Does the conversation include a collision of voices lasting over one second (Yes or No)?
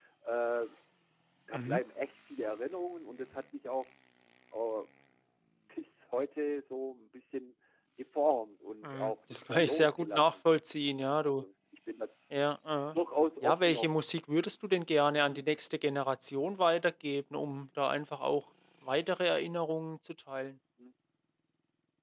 Yes